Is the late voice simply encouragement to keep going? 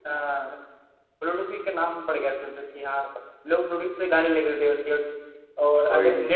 Yes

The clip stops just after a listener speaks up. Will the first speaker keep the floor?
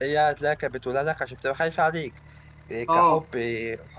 Yes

